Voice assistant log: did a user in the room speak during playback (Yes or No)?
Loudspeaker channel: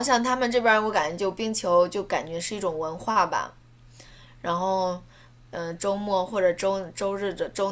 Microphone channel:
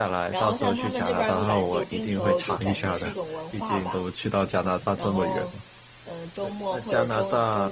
Yes